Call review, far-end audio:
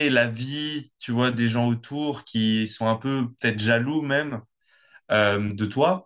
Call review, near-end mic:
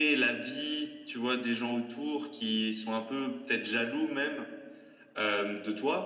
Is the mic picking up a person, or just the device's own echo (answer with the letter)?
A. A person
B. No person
B